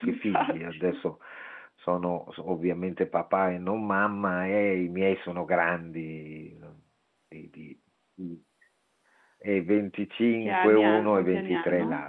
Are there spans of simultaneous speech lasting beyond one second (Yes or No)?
Yes